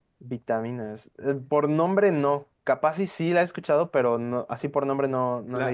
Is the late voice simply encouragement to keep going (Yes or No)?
No